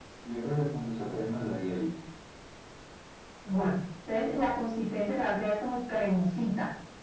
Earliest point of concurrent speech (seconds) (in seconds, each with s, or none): none